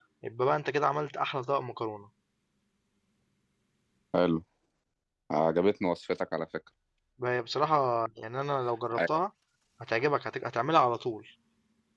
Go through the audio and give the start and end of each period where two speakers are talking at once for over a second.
none

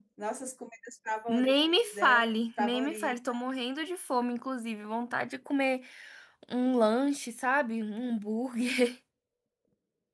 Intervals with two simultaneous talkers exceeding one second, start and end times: 1.3-3.1

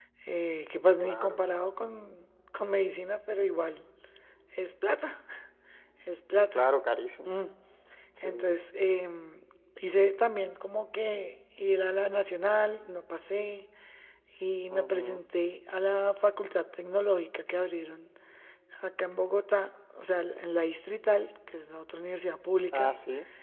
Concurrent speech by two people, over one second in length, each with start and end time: none

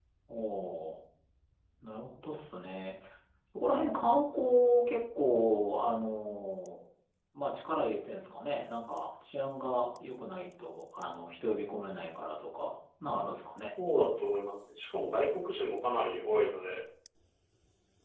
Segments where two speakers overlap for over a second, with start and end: none

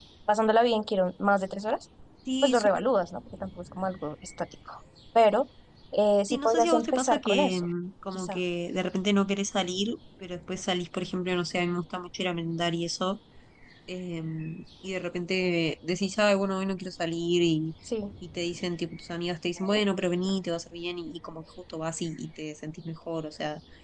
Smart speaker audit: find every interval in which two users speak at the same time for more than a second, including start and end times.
6.3-7.7

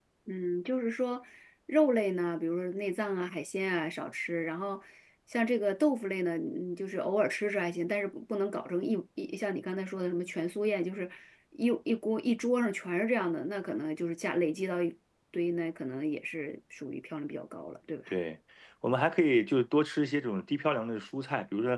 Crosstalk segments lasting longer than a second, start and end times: none

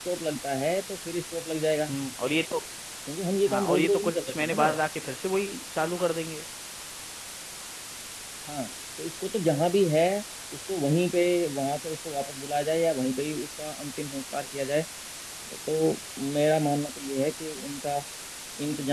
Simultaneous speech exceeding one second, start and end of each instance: 3.5-4.8

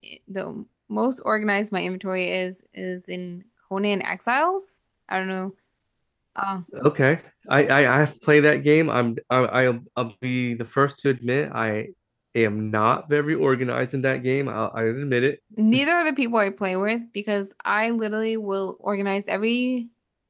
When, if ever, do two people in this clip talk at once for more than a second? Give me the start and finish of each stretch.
none

